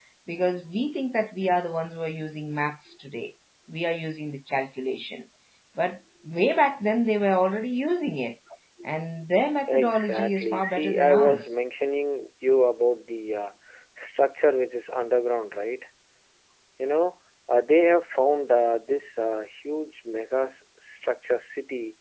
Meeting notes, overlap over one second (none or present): present